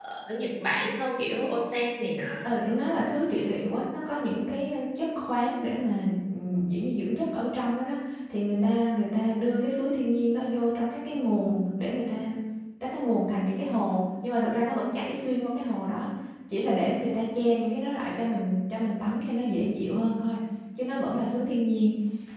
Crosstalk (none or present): none